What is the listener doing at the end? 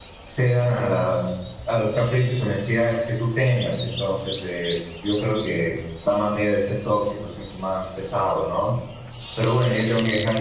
listening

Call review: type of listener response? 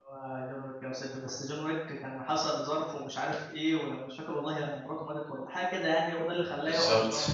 listening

